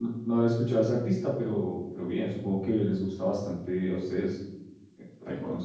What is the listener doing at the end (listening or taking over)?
listening